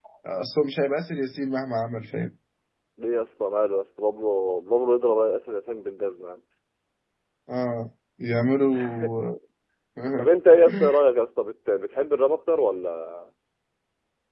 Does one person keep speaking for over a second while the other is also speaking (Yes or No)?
No